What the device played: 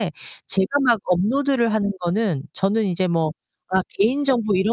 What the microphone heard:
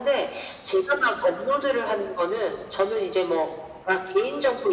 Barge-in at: none

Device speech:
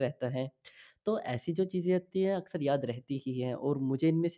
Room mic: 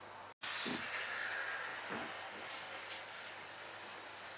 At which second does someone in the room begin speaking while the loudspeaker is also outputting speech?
none

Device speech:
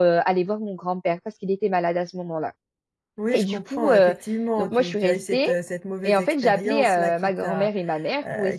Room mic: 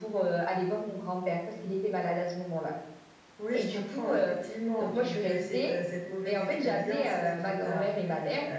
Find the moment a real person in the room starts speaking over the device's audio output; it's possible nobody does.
none

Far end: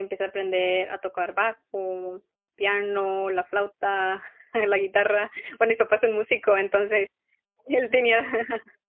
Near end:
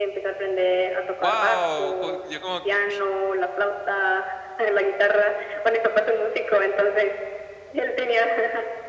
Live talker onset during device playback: 1.2 s

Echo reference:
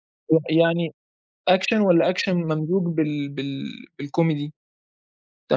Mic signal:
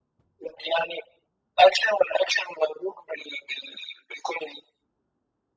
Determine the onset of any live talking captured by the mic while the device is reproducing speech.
none

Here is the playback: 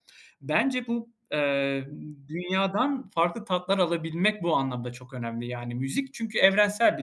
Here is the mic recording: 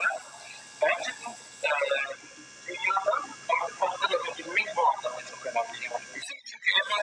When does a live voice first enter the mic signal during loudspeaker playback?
none

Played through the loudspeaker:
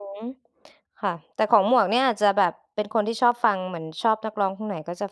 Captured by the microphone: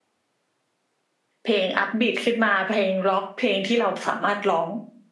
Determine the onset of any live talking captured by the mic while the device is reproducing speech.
1.4 s

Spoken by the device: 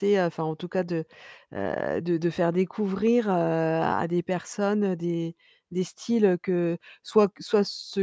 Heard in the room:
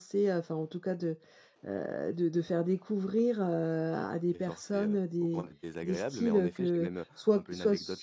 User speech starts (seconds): 4.4 s

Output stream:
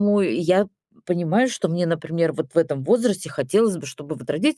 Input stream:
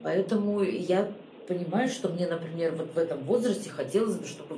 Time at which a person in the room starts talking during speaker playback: none

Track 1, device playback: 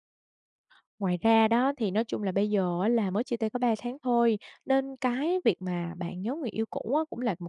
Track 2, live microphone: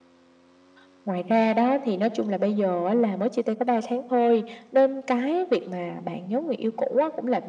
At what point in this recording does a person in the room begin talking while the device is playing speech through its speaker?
none

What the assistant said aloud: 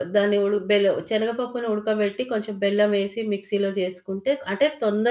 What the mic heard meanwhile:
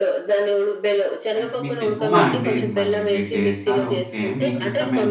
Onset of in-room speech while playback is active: 1.4 s

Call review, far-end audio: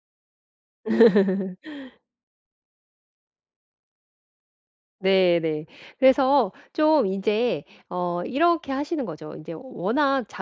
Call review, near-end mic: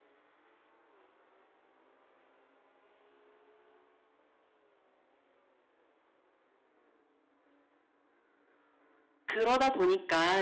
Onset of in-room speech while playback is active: 9.2 s

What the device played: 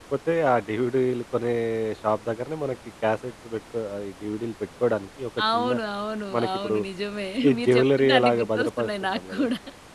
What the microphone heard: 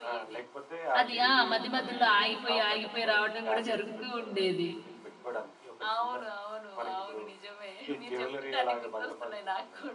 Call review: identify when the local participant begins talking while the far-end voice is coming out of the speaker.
1.0 s

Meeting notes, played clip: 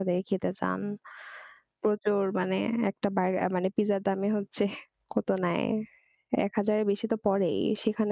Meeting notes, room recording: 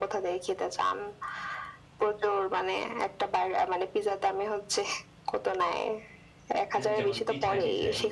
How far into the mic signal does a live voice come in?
6.8 s

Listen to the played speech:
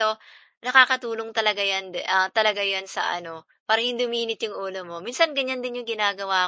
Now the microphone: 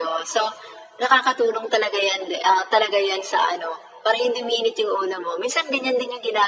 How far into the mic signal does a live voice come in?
none

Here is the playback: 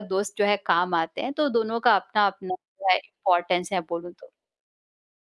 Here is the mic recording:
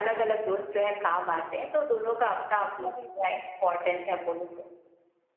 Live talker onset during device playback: 2.8 s

